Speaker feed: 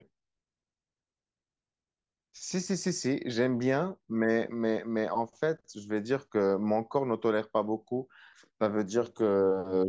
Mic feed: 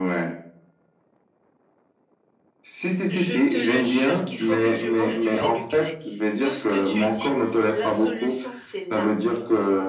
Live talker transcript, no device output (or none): Je te le jure qu'il faut que tu manges du fenugrec. Tout ce que tu dis, la solution, c'est là.